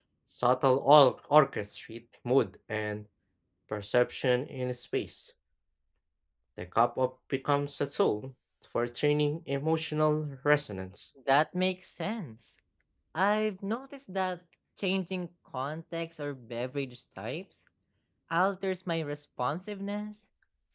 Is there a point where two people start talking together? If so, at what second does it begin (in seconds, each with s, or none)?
none